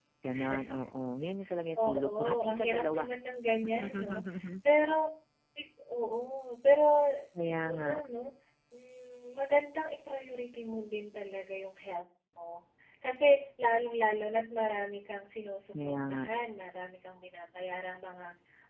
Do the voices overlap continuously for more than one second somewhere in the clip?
Yes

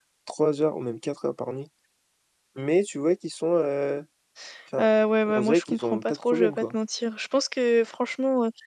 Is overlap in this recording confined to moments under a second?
No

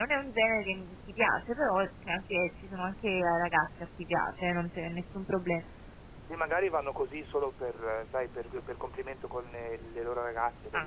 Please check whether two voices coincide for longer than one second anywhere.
No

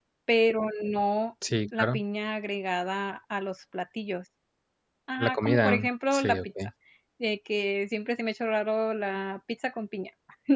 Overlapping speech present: Yes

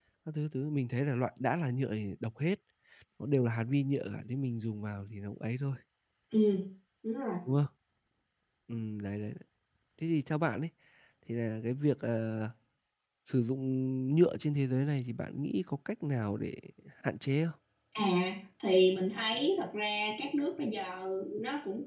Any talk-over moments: No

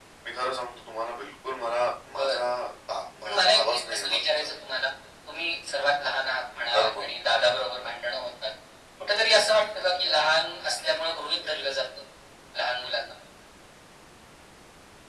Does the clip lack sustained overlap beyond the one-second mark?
No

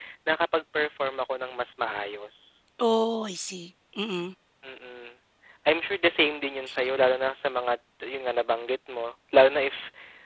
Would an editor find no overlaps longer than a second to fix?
Yes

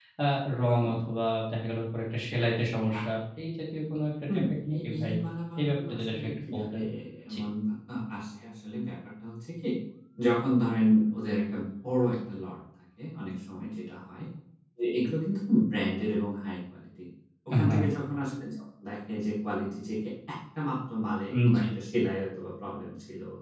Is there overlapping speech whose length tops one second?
Yes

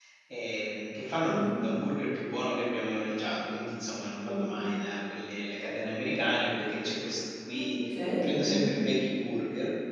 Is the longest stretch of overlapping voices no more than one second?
Yes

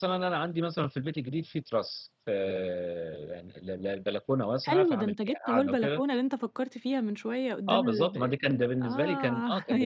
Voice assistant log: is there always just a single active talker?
No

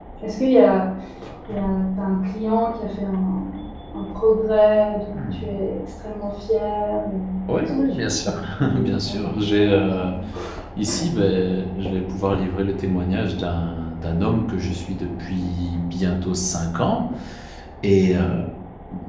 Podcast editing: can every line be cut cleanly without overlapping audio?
No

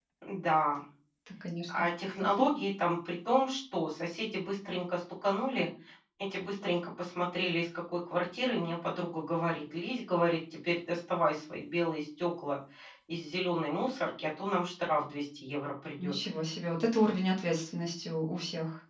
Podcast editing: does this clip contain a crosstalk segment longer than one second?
No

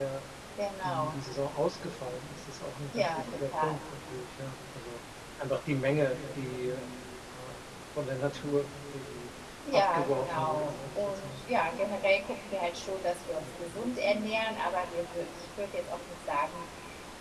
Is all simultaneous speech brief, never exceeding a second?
No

